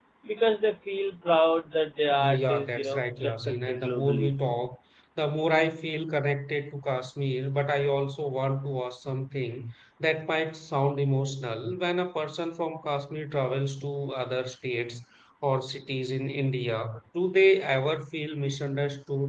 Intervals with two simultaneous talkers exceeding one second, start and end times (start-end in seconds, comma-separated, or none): 2.1-4.3